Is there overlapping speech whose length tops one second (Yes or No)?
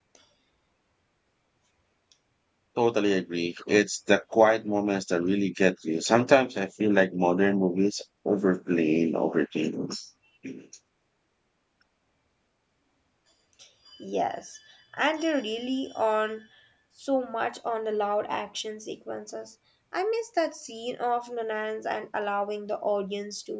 No